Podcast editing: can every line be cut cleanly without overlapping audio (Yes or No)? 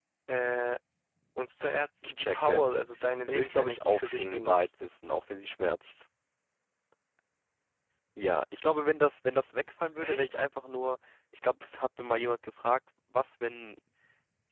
No